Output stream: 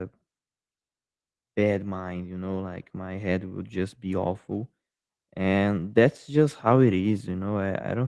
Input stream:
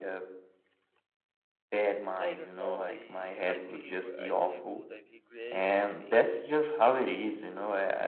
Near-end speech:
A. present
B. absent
A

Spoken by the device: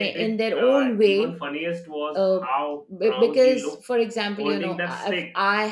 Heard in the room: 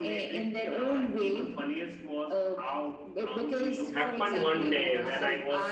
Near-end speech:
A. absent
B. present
B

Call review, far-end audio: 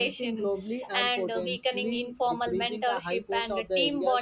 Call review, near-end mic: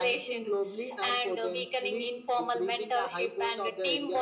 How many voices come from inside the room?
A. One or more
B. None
B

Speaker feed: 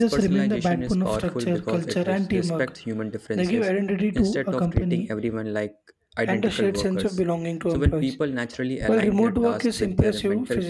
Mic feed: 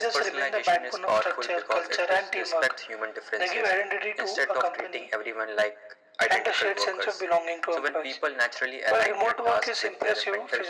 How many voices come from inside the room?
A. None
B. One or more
A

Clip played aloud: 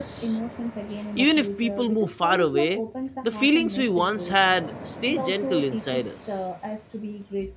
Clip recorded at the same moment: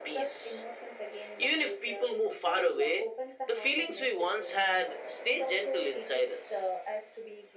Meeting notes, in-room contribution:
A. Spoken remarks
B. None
B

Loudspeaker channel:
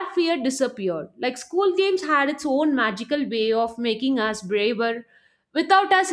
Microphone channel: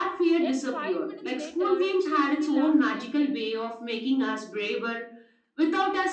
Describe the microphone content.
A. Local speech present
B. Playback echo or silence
A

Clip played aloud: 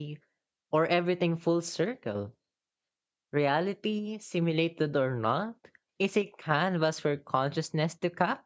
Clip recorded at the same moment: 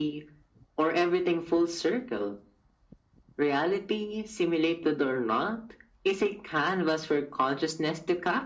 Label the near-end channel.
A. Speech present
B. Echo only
B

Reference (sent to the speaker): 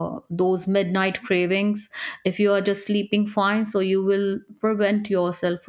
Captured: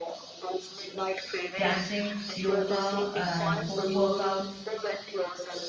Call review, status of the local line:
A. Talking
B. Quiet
A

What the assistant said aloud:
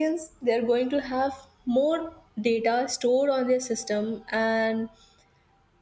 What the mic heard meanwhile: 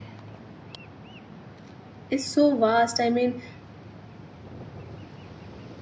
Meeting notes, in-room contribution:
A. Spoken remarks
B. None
A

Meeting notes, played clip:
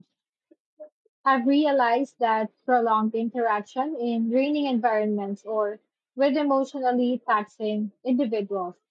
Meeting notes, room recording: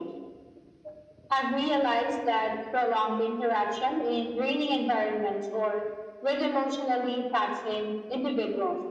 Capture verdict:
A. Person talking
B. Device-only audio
B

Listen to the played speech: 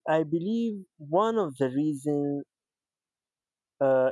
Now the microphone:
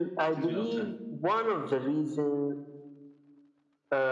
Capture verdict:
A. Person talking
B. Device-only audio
A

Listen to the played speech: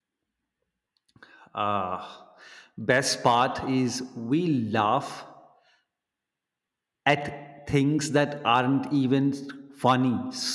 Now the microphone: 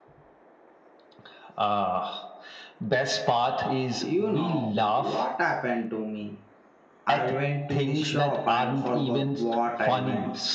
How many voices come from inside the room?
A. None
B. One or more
B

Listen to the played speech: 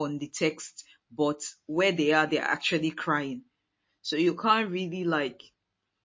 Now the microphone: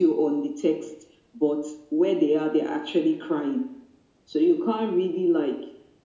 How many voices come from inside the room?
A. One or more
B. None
B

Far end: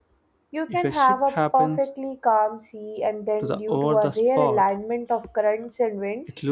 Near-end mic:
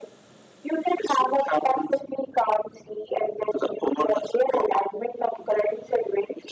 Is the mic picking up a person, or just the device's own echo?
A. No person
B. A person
A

